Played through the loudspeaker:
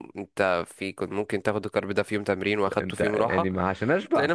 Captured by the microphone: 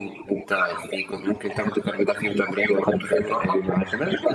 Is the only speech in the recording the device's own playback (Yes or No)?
Yes